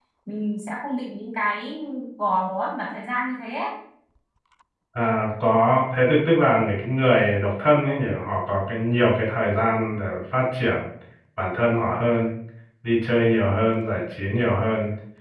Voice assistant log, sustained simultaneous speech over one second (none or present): none